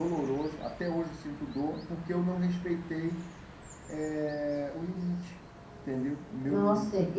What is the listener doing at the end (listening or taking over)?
taking over